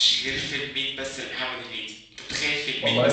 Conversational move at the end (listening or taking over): listening